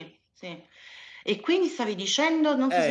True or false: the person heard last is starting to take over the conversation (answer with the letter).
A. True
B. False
A